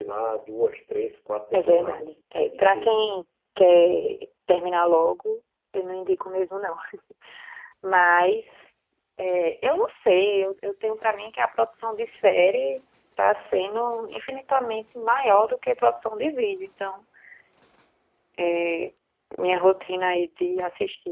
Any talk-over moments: Yes, from 1.5 s

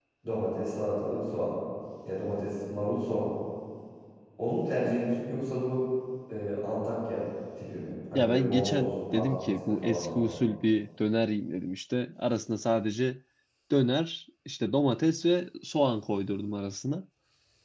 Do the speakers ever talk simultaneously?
Yes, from 8.1 s

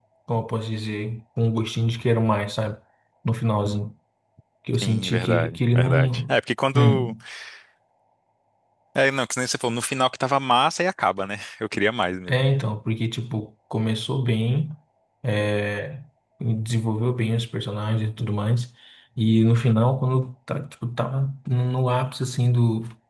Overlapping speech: Yes, from 4.8 s

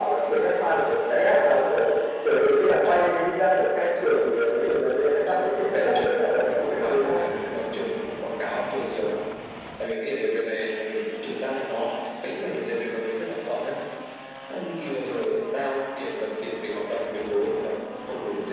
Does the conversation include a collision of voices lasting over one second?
Yes, from 5.3 s

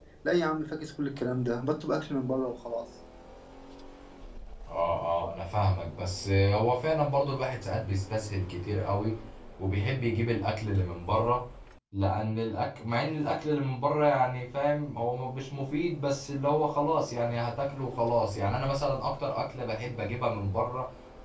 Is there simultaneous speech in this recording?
No

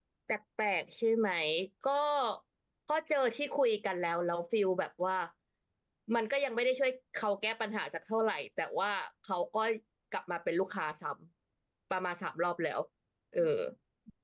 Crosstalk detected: No

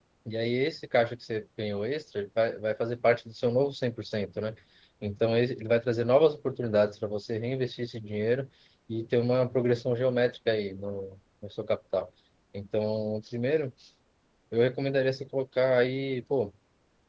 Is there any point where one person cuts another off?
No

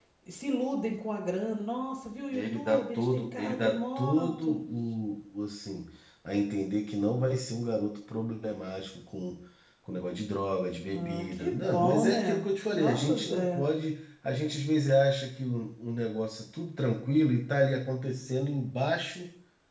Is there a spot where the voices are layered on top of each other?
Yes, from 2.3 s

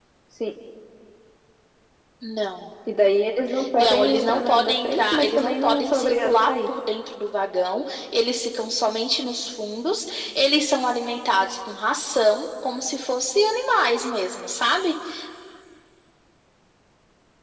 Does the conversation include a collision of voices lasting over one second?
Yes, from 3.8 s

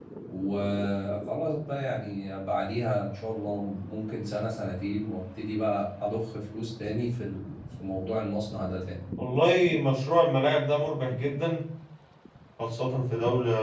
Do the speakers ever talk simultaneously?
No

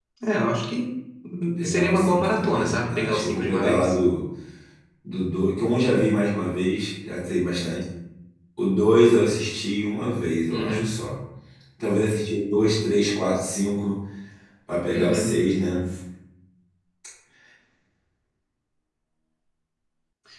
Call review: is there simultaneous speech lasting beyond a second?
Yes, from 1.6 s

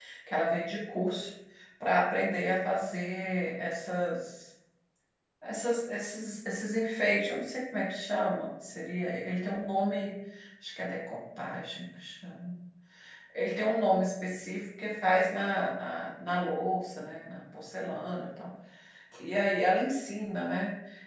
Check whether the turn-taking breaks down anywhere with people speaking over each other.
No

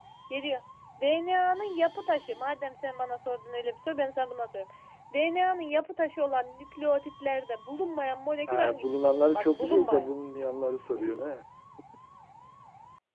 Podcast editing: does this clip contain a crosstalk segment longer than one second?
Yes, from 8.5 s

